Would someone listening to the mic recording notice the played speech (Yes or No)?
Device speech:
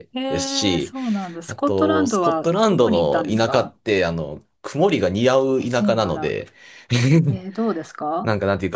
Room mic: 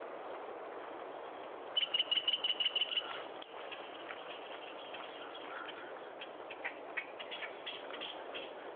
No